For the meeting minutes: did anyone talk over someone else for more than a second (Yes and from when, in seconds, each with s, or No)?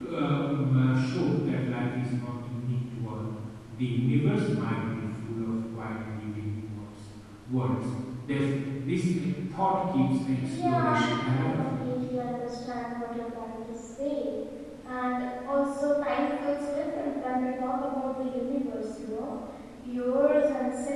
Yes, from 10.4 s